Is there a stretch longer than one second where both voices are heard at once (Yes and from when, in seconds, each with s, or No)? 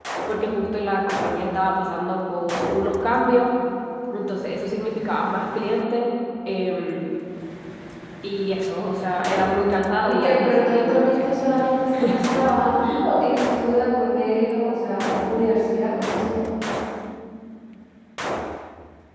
Yes, from 9.5 s